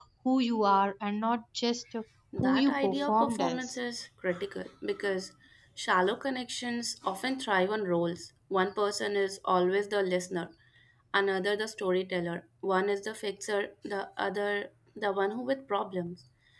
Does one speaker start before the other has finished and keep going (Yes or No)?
Yes